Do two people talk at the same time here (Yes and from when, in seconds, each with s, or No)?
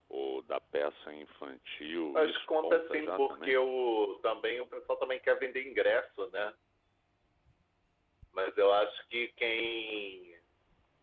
Yes, from 2.1 s